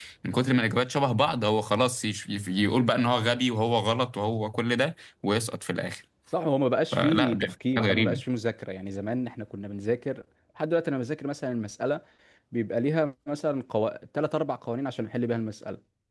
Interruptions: present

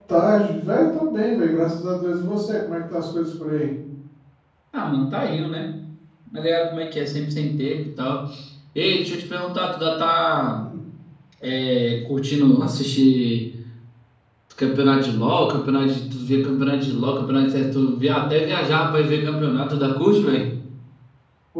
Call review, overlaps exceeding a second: none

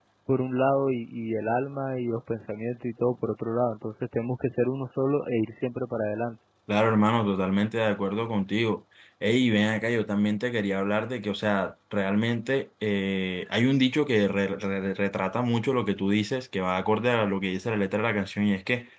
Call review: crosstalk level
none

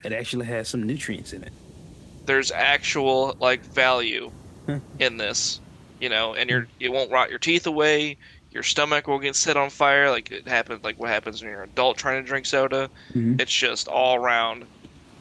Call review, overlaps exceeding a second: none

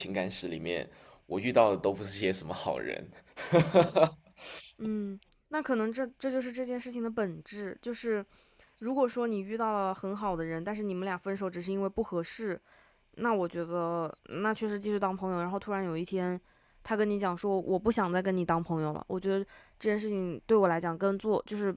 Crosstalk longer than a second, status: none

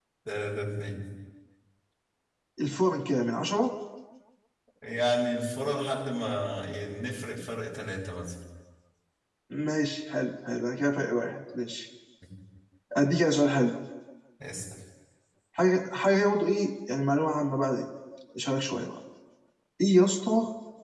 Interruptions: none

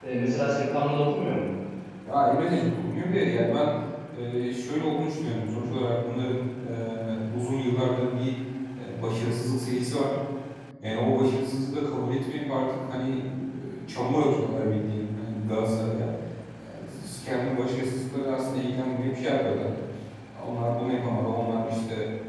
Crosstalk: none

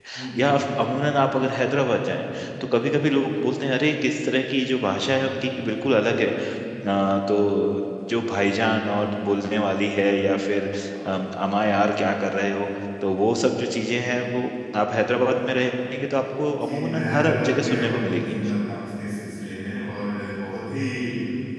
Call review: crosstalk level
present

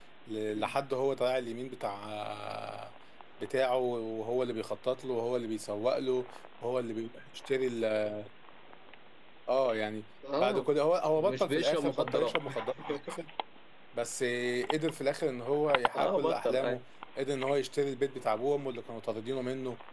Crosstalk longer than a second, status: present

